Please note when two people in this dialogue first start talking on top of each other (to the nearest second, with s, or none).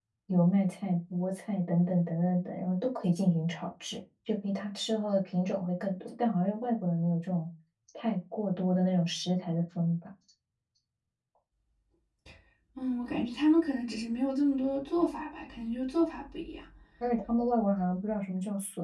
none